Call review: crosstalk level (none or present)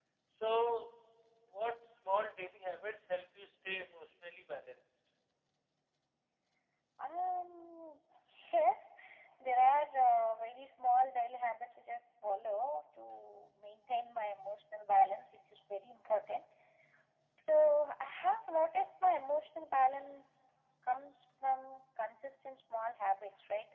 none